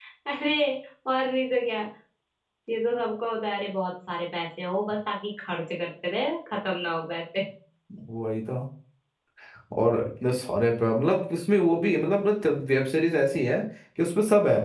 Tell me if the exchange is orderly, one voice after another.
Yes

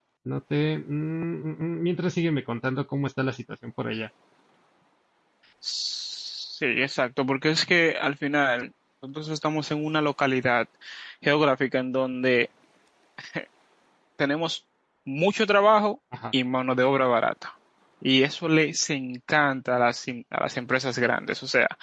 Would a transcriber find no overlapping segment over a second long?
Yes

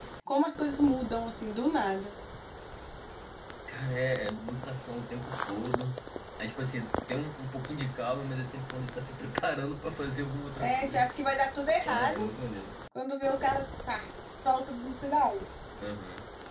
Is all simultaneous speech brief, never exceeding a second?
Yes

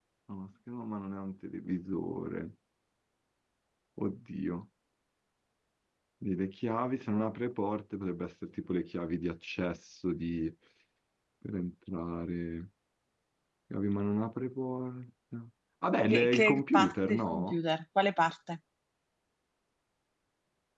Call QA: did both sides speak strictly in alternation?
No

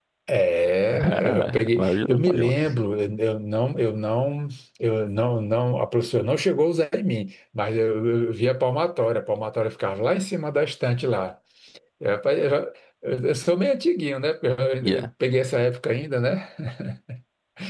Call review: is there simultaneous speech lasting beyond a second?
Yes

